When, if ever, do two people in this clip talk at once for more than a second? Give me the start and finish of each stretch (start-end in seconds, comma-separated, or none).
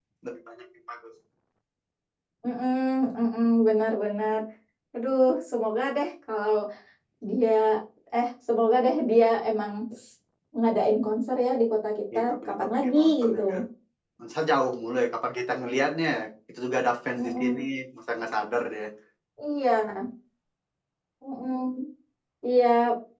12.1-13.4